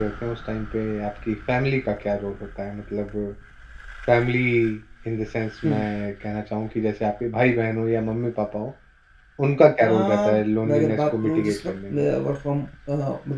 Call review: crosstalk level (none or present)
present